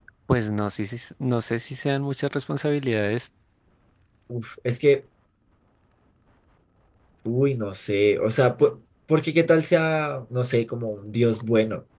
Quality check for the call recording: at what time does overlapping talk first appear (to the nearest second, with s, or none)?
none